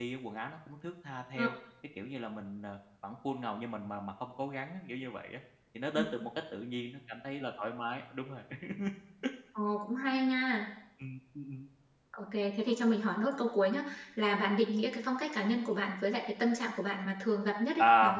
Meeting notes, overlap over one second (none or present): none